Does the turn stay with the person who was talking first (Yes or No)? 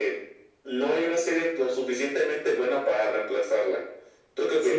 No